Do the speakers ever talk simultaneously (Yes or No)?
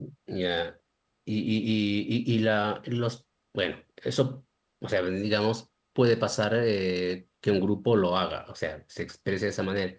No